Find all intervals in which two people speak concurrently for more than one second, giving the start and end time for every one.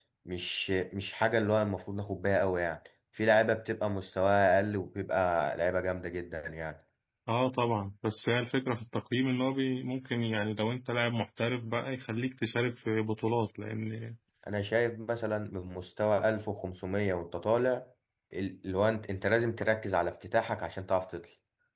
none

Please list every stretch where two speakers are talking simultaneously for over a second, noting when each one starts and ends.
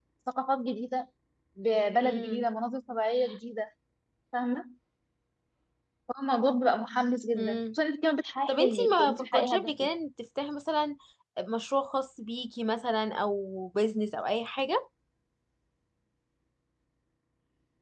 8.5-9.9

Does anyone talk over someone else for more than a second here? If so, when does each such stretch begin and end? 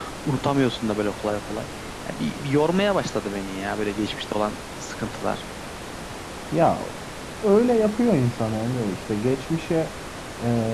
none

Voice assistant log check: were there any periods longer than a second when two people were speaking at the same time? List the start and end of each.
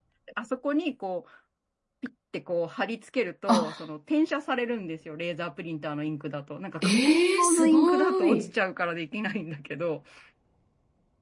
6.8-8.5

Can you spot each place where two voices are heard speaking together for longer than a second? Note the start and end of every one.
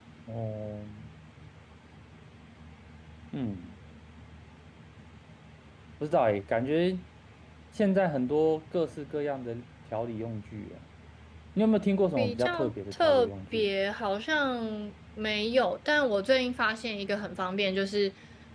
12.2-13.7

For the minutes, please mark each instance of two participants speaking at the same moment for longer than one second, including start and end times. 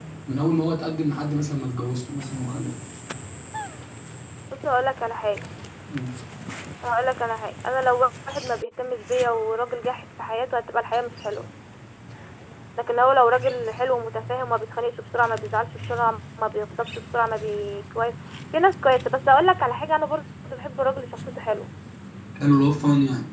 none

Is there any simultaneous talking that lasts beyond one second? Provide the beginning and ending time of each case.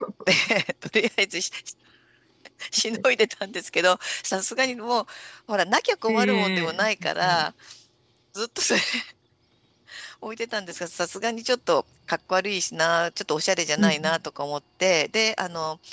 6.1-7.4

